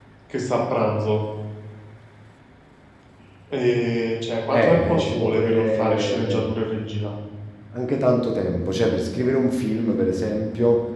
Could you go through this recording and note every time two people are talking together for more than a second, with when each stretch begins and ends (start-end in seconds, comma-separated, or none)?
4.5-6.5